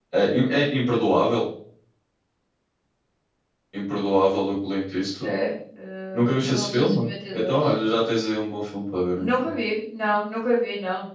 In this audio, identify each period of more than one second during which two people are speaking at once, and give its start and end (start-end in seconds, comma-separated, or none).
6.1-7.6